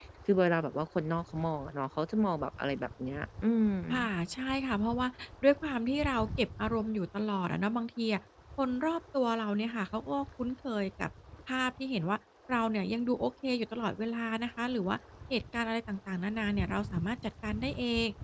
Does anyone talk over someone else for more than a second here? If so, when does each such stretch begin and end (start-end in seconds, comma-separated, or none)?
none